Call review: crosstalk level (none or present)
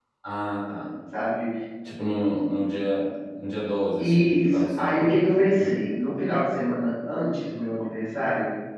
present